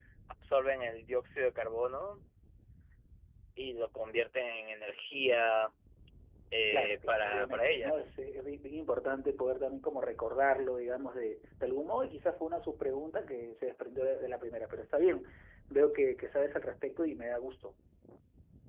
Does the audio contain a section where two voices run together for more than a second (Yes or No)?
Yes